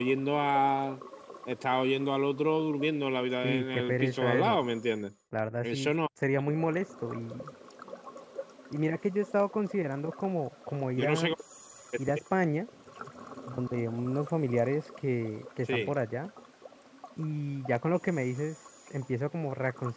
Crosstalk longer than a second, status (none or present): present